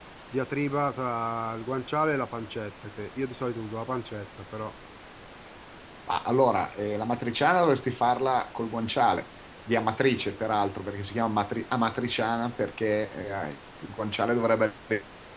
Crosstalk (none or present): none